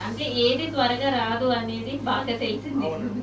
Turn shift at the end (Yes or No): Yes